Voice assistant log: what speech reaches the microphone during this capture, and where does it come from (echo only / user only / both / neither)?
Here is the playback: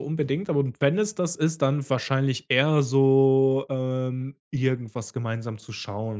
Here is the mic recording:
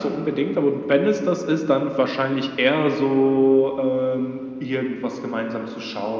echo only